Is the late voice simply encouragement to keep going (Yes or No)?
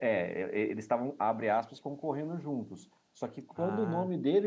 Yes